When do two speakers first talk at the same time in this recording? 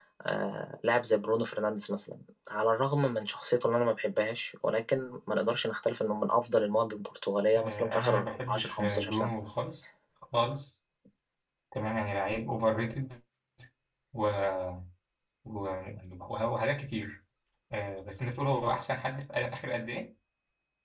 7.6 s

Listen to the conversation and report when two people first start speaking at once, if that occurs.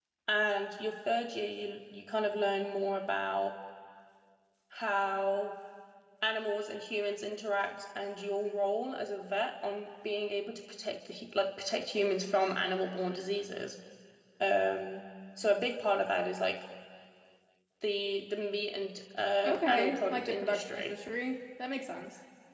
19.4 s

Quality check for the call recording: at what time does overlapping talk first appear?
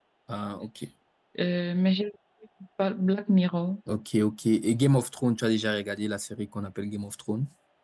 none

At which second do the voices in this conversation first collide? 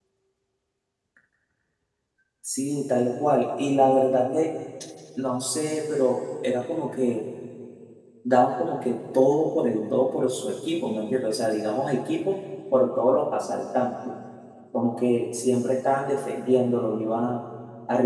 none

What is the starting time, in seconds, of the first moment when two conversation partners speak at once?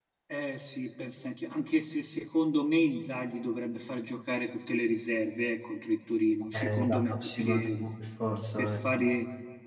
6.5 s

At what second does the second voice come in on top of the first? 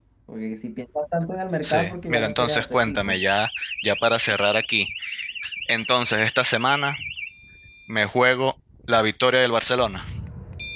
1.6 s

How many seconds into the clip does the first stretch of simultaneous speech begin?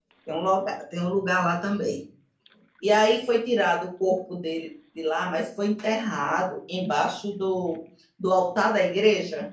none

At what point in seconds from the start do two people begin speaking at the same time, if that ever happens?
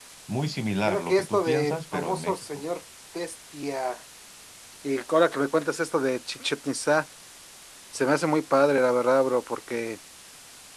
0.8 s

